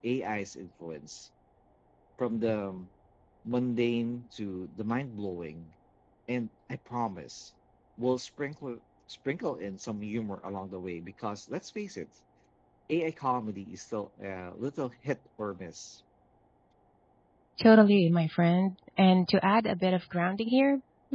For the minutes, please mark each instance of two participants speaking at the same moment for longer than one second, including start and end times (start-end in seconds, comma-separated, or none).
none